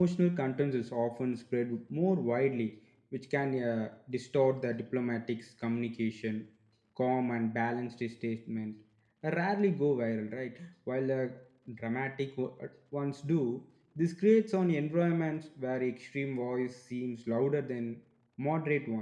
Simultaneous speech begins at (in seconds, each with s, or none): none